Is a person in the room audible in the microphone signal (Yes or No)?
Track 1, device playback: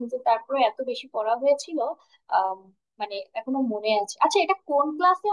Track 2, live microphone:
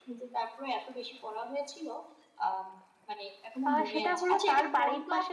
Yes